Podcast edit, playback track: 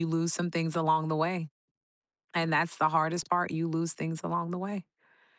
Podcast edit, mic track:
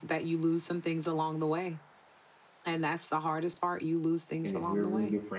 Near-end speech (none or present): present